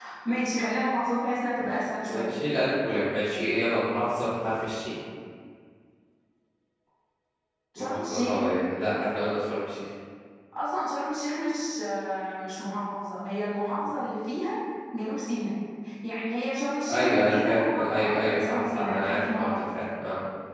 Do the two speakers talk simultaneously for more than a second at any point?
Yes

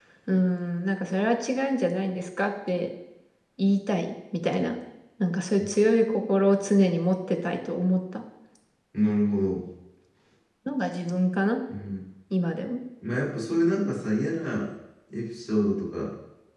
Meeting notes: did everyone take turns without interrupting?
Yes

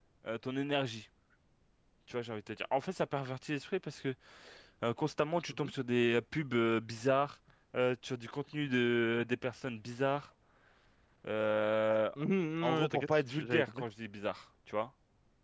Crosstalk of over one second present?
Yes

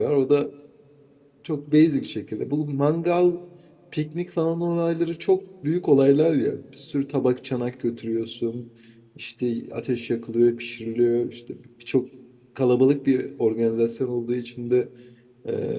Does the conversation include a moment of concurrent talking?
No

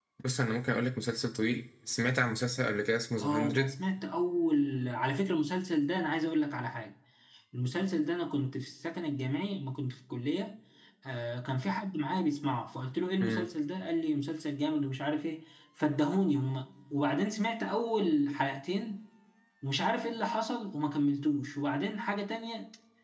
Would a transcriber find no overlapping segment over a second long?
Yes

